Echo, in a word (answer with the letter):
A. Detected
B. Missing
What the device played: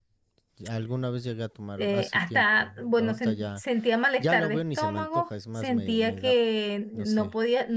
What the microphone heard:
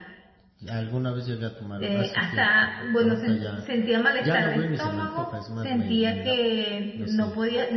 A